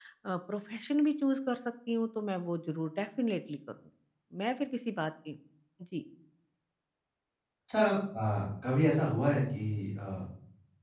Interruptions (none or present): none